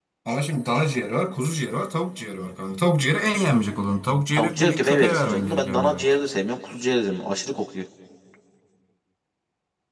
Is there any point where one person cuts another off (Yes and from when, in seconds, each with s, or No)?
Yes, from 4.3 s